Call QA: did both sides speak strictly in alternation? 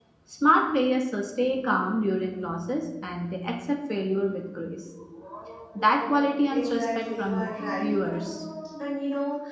No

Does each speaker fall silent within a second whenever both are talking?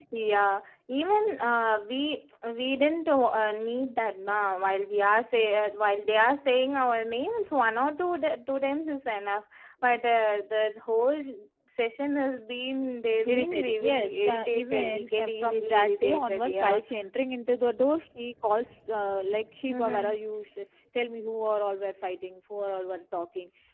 No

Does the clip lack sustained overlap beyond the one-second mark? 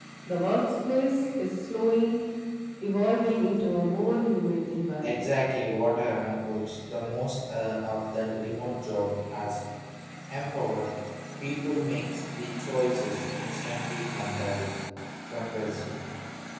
Yes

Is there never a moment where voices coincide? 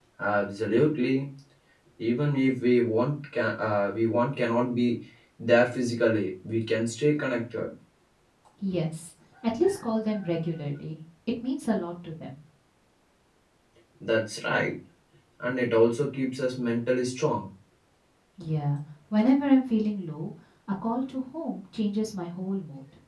Yes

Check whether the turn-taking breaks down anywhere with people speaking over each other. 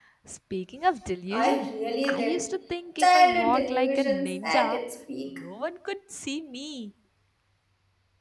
Yes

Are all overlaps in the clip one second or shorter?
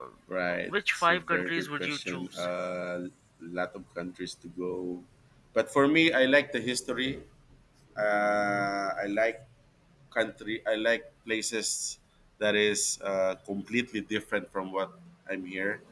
No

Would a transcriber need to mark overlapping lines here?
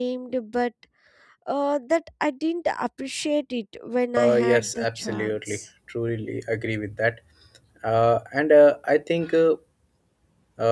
Yes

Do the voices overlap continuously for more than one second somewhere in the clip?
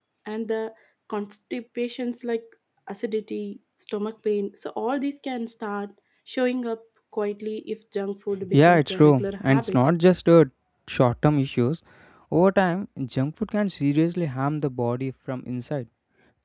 Yes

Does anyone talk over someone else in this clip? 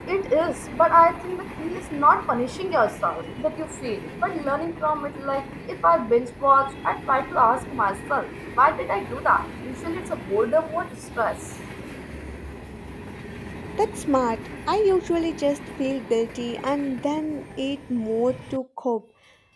No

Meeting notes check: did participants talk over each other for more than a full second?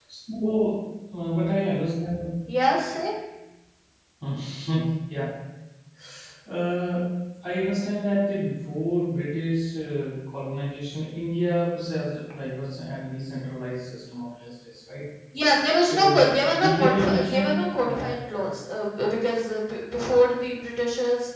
Yes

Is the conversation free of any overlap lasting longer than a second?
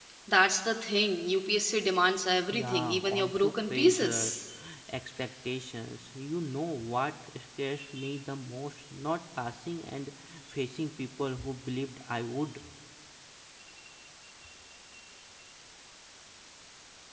No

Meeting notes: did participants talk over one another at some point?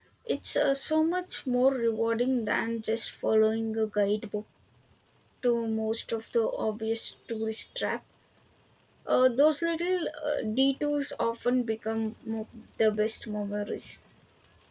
No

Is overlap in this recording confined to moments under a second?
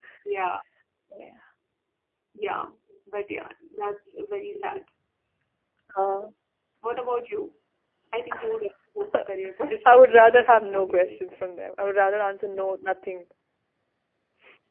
No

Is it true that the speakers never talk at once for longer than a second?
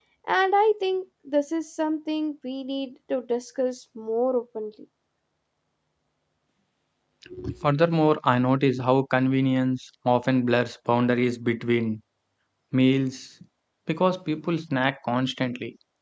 Yes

